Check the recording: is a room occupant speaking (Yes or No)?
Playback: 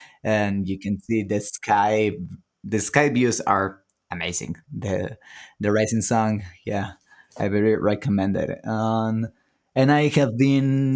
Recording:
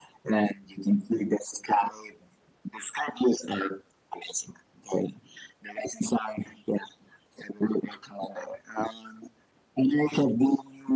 No